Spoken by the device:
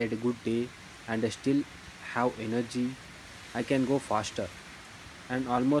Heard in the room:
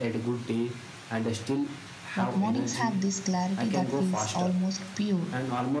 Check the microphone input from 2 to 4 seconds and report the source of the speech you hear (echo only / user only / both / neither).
both